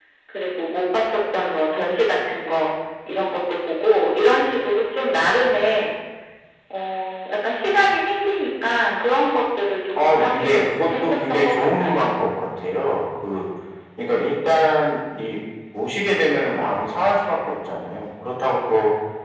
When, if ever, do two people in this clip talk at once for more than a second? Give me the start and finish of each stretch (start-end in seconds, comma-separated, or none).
10.0-12.0